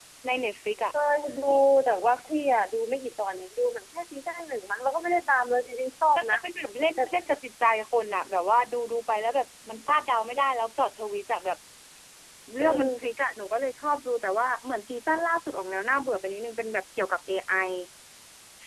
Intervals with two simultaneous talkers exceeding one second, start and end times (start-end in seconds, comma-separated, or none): none